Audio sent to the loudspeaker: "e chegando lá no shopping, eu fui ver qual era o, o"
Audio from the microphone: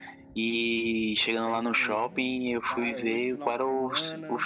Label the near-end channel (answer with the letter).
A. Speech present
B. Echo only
A